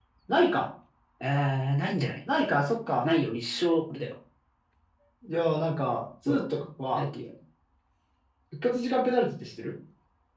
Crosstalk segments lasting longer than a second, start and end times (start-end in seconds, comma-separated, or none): none